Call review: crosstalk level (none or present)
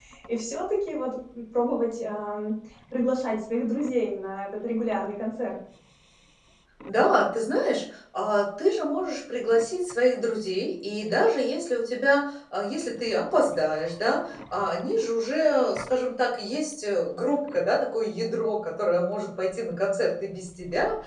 none